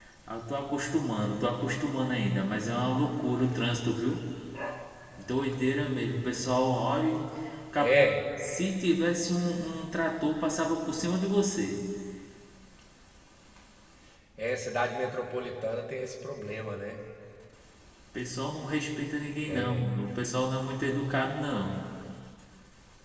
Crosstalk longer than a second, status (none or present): none